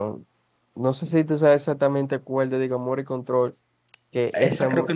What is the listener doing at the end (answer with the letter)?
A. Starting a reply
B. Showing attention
A